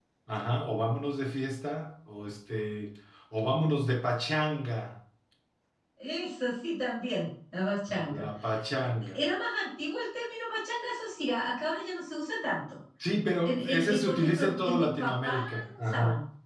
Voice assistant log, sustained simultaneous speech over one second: present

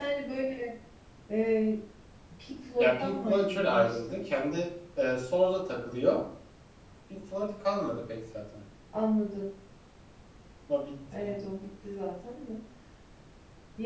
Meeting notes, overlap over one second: present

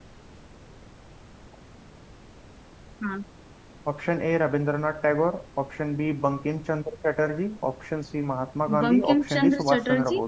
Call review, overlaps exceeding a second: present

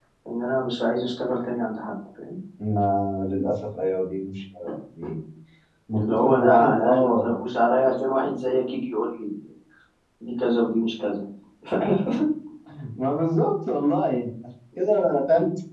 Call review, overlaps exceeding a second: present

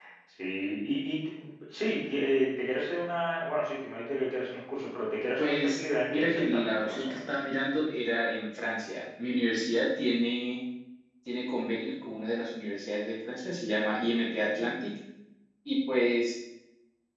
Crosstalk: present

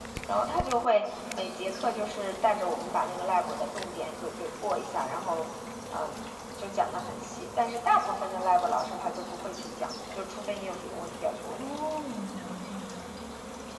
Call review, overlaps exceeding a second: none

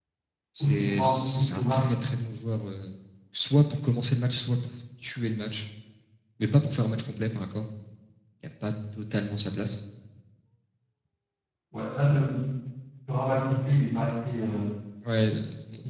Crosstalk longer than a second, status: present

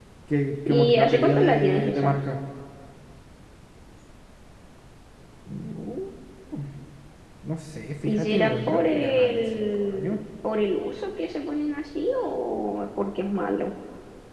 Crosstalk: present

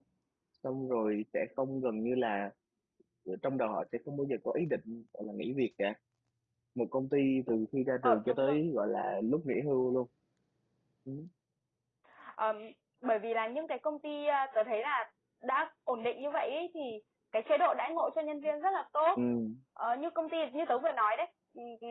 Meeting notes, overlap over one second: none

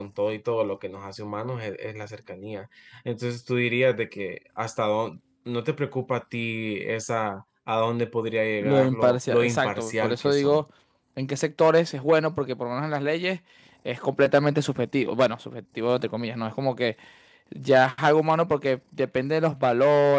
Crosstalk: present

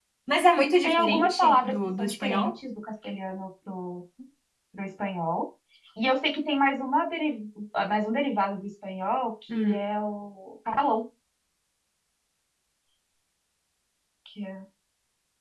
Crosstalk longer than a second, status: present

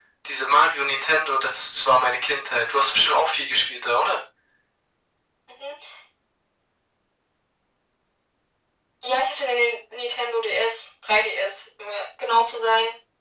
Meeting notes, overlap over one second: none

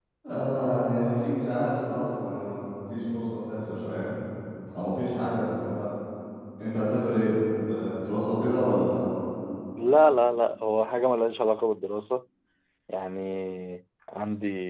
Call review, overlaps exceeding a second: none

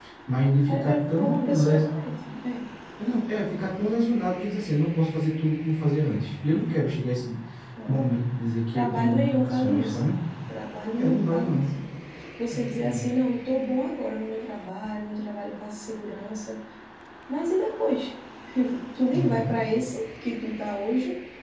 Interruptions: present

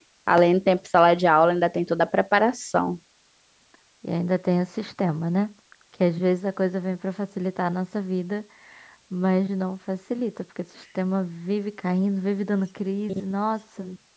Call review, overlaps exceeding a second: none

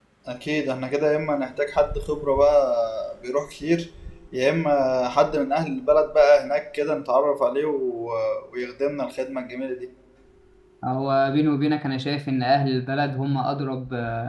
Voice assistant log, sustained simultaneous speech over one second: none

